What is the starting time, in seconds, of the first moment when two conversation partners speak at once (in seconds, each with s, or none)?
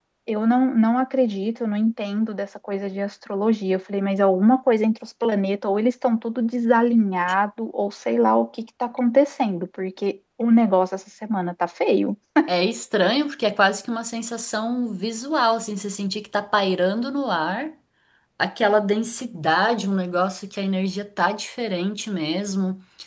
none